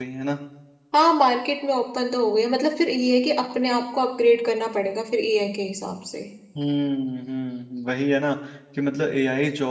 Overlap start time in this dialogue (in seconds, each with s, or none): none